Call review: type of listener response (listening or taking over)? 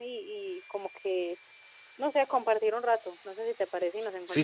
taking over